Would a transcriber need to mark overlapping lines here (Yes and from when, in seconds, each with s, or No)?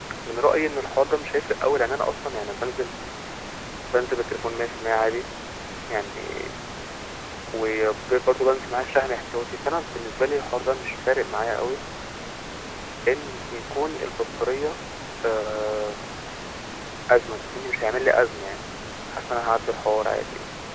No